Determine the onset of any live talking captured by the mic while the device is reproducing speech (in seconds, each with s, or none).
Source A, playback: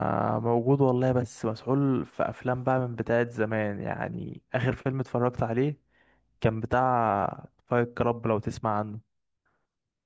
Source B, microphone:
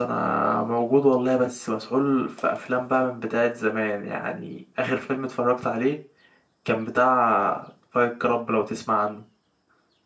none